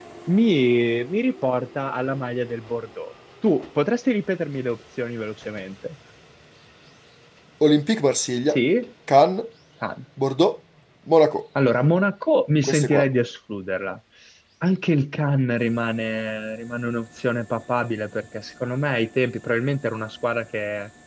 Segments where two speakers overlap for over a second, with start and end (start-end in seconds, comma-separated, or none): none